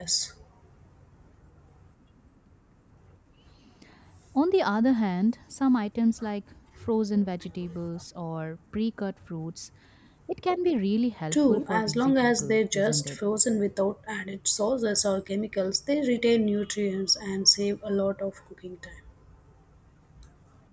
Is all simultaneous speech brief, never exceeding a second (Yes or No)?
No